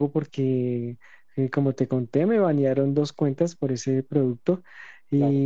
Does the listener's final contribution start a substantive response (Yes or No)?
No